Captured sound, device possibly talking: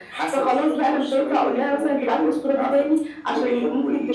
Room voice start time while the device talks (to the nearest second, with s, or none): none